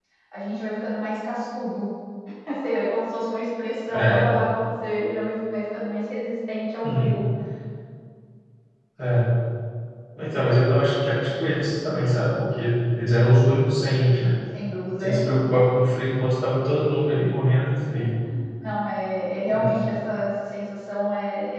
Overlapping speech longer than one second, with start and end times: none

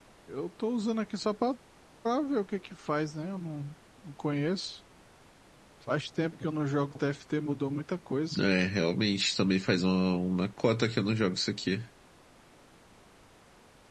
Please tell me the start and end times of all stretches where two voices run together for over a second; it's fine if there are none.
none

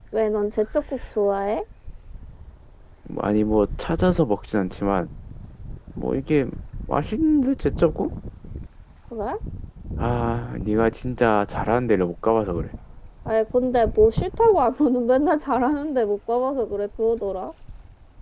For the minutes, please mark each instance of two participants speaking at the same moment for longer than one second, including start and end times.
none

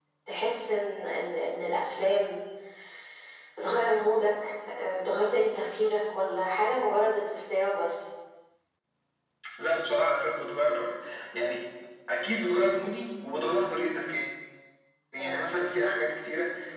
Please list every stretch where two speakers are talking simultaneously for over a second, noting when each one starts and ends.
none

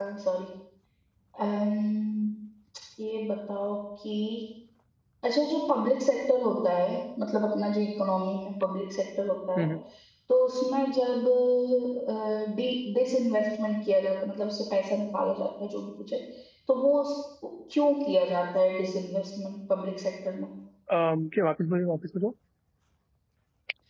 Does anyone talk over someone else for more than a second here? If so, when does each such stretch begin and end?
none

